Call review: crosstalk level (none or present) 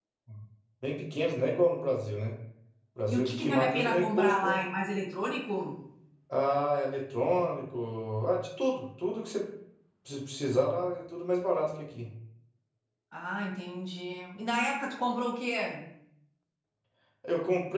present